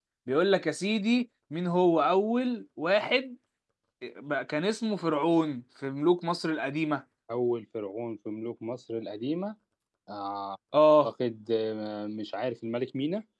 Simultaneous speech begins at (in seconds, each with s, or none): none